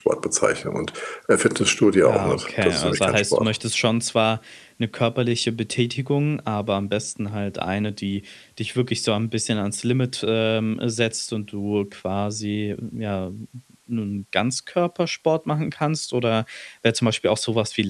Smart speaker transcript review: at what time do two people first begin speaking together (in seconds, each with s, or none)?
2.0 s